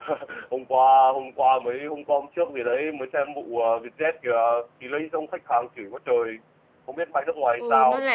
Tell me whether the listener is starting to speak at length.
Yes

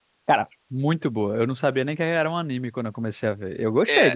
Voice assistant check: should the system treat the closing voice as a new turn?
Yes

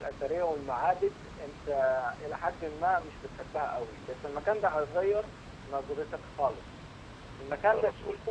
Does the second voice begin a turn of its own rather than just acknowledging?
No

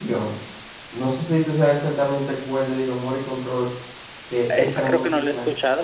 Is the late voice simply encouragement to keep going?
No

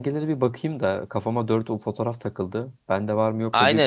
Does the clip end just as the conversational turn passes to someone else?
Yes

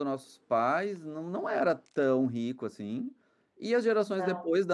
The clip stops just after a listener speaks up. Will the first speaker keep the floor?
Yes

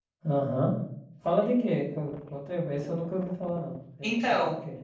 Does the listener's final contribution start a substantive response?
Yes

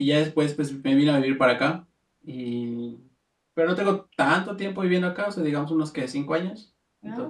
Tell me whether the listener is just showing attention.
No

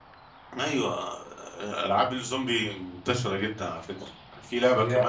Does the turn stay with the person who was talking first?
Yes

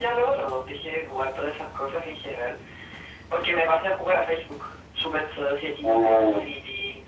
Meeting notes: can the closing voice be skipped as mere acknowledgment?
Yes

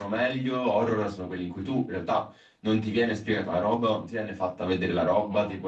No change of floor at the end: Yes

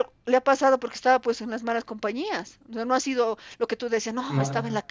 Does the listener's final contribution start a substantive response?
No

